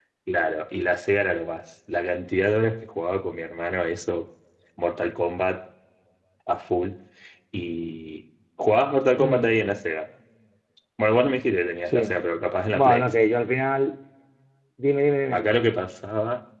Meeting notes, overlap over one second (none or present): none